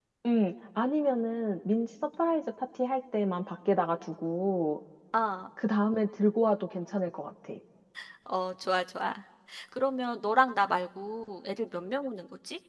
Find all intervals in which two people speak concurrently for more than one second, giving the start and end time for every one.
none

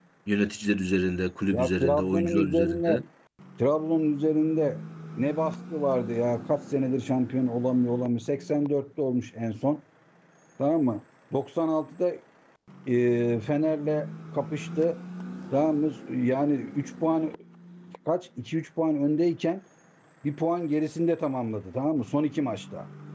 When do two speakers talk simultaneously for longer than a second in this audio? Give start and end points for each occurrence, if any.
1.5-3.0

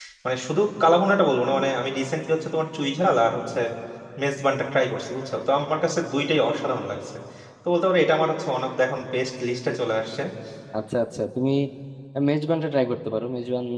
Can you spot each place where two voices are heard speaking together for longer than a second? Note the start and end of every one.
none

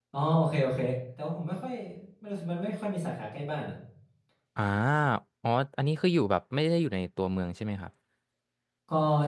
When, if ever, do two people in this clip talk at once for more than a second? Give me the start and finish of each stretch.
none

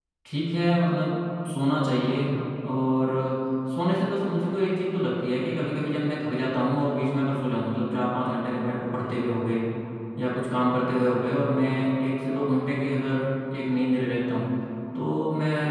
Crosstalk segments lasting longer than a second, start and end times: none

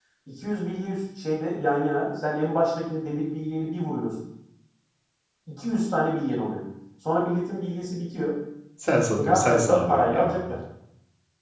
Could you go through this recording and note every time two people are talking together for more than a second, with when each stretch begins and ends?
9.1-10.4

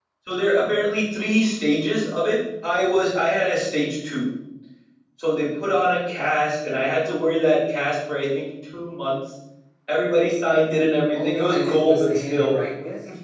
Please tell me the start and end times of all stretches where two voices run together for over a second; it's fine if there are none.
11.1-12.5

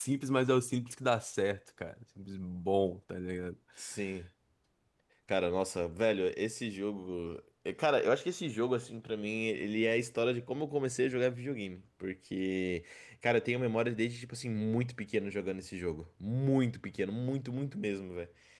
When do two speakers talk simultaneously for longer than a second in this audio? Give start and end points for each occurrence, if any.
none

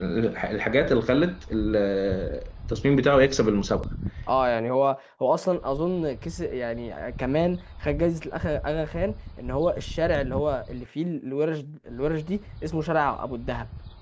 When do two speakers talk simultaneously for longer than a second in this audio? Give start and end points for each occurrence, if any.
none

